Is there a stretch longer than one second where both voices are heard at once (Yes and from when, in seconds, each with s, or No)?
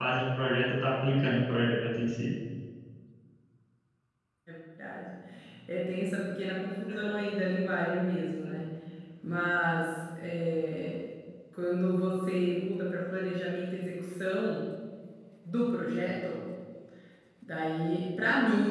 No